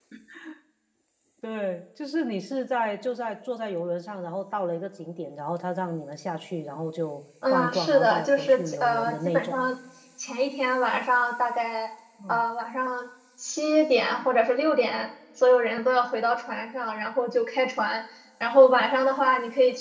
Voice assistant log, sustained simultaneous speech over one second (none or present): present